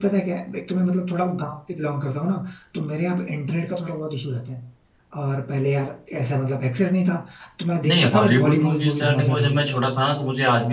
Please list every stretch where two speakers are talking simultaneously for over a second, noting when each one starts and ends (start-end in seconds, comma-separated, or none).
7.9-9.8